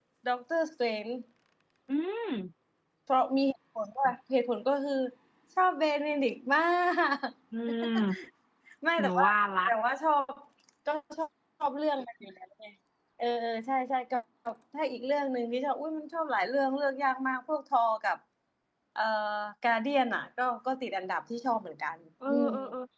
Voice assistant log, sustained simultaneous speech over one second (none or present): none